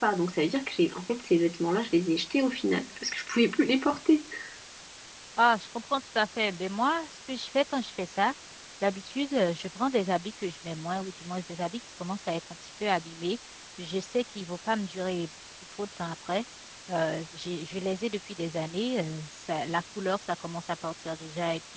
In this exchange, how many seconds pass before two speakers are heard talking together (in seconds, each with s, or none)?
none